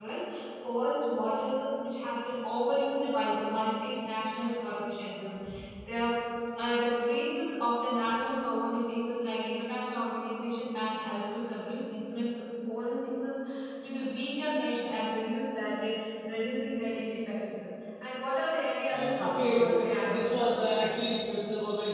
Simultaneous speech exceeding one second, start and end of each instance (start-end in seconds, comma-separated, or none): 18.9-20.5